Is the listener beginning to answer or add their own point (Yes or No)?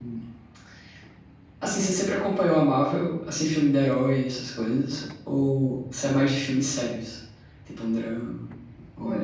Yes